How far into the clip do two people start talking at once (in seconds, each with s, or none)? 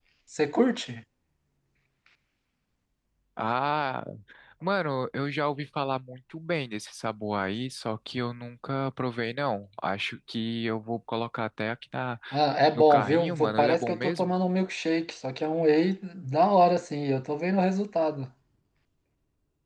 12.7 s